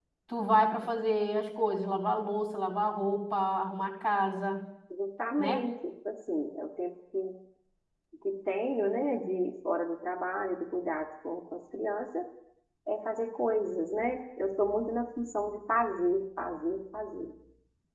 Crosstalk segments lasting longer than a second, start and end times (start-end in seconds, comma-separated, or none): none